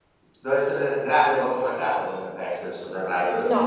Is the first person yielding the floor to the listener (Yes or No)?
Yes